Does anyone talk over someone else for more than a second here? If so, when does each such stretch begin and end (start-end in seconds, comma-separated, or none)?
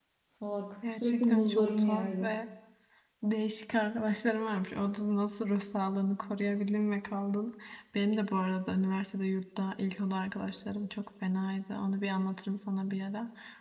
1.0-2.3